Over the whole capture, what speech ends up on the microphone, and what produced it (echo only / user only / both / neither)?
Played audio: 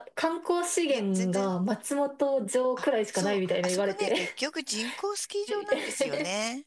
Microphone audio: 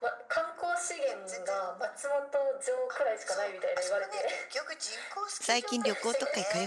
both